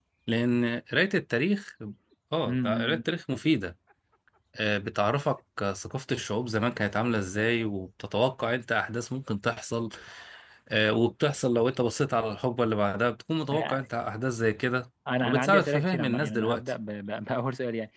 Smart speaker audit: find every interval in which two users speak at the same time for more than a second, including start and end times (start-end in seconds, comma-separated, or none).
15.2-16.6